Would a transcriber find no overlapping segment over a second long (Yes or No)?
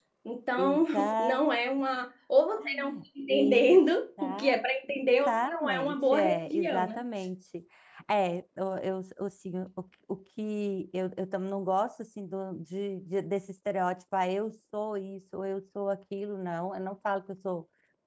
No